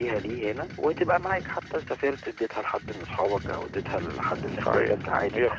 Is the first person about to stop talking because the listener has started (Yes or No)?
Yes